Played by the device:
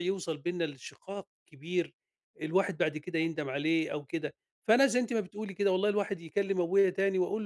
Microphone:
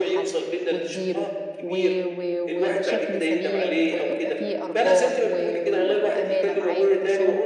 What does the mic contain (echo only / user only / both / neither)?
both